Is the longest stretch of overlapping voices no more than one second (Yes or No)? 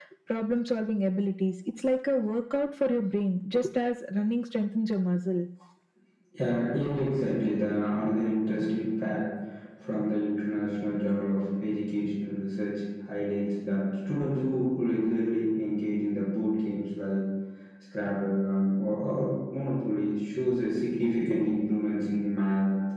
Yes